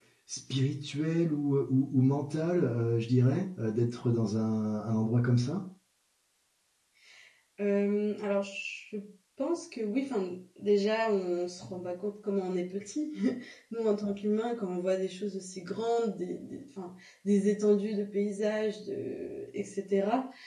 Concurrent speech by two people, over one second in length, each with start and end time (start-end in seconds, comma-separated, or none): none